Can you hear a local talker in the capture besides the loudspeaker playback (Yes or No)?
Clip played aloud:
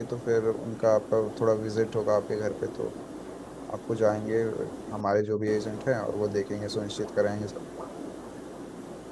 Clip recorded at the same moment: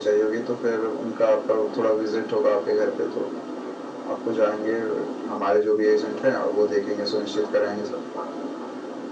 No